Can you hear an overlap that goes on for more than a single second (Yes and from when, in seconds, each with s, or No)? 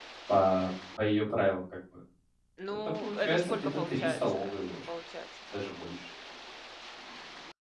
Yes, from 2.7 s